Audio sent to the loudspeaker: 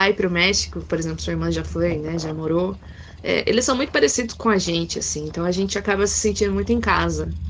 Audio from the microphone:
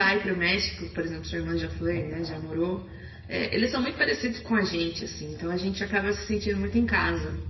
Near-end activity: none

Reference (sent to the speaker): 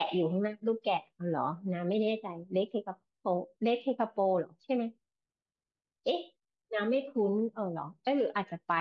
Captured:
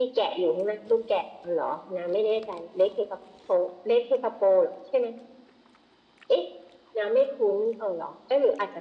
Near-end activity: none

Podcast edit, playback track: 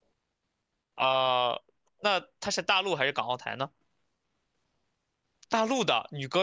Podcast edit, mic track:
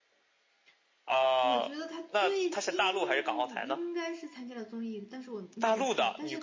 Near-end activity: present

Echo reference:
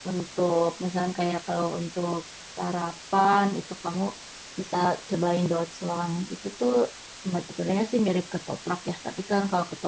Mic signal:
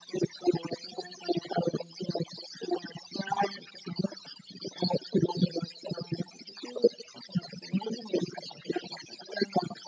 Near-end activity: none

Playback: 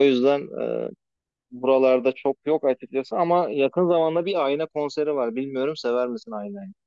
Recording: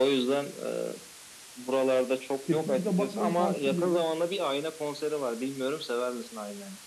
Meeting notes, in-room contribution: present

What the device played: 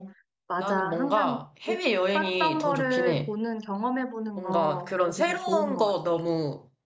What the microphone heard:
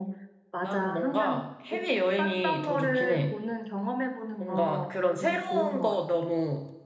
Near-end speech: none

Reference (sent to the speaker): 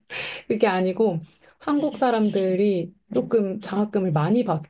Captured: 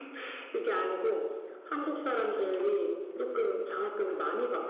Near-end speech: none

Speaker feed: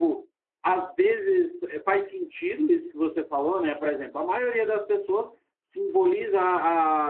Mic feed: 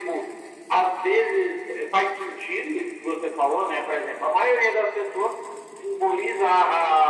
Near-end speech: none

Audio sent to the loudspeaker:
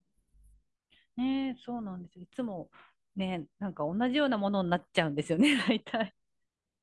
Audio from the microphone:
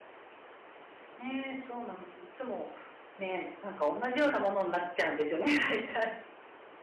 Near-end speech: none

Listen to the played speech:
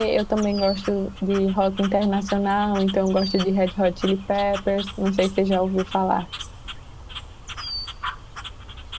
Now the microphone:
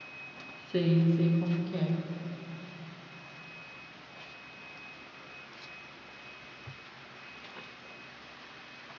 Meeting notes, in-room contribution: present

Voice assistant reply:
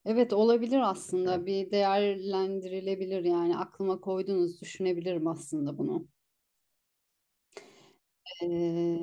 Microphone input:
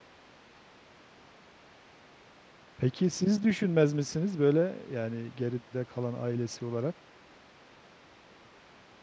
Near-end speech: present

